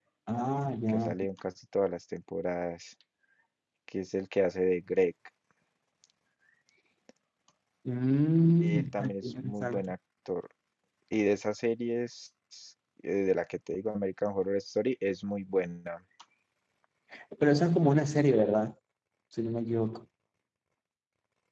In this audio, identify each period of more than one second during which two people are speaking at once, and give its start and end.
8.6-9.9

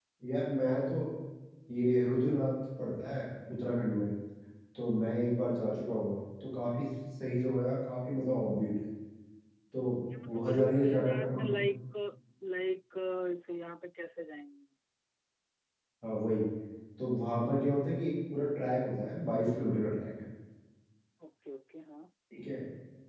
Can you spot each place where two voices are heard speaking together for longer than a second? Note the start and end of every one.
10.3-11.6

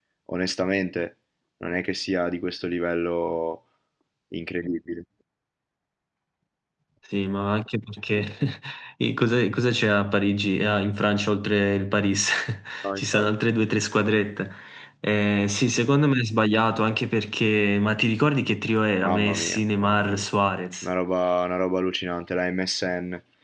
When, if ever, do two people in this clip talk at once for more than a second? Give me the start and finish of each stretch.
19.0-20.2

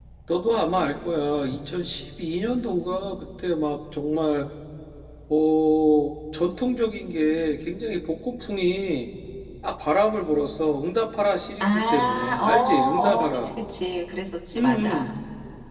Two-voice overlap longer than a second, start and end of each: 11.6-13.5

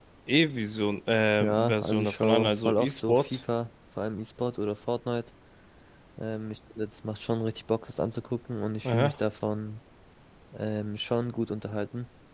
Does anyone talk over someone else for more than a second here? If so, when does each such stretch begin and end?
1.4-3.4

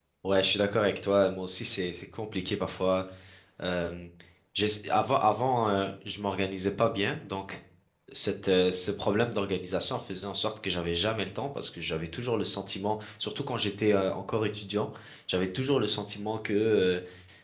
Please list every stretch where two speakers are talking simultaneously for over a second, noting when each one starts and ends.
none

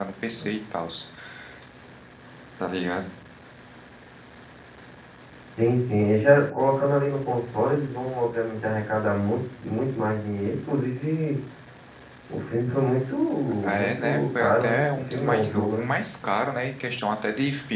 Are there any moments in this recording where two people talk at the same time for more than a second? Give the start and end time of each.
13.7-15.9

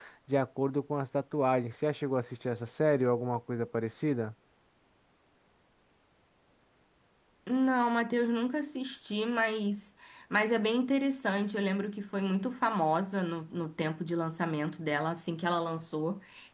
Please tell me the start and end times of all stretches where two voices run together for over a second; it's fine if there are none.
none

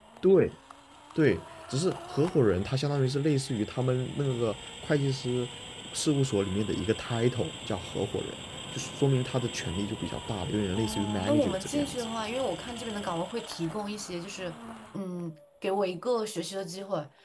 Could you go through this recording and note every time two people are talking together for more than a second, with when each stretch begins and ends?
10.7-12.0

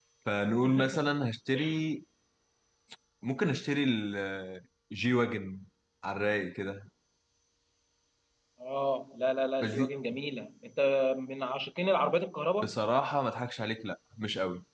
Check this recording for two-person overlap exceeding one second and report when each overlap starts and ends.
none

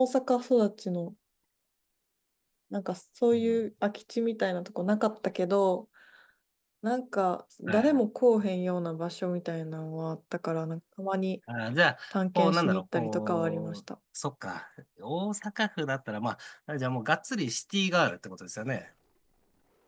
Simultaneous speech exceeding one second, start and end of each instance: 12.4-13.8

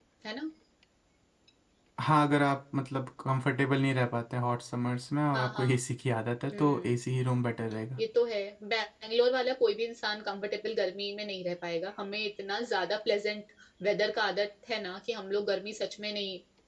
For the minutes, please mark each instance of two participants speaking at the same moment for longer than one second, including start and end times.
none

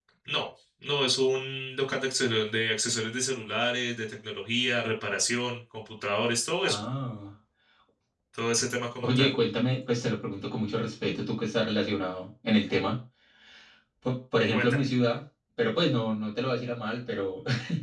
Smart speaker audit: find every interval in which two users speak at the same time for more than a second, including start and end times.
none

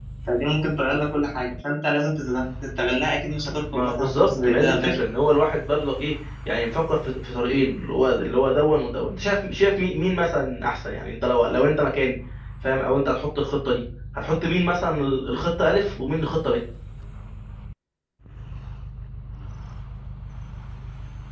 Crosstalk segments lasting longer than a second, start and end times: 3.7-4.9

